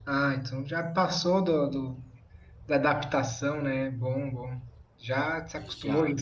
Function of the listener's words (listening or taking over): listening